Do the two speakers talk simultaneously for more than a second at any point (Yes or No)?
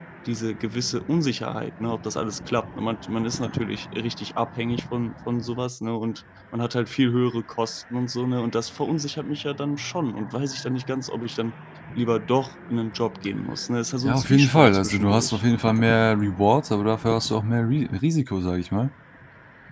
Yes